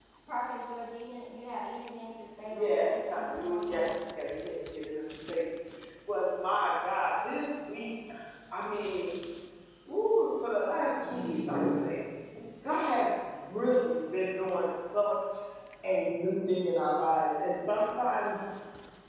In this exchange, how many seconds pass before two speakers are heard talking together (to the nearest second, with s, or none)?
3 s